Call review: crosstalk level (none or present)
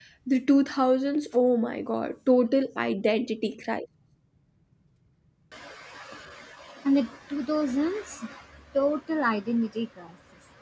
none